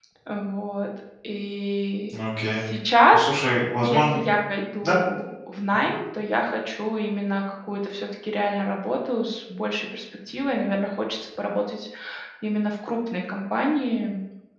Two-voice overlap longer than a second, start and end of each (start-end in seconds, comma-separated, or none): none